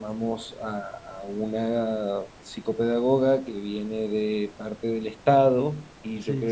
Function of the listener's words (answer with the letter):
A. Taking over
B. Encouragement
B